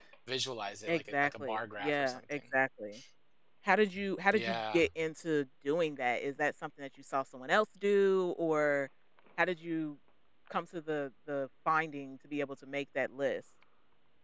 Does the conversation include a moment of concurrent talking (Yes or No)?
Yes